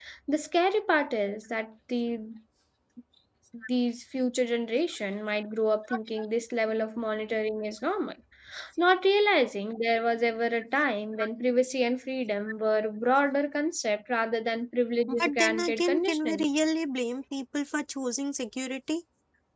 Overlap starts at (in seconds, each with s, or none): 15.1 s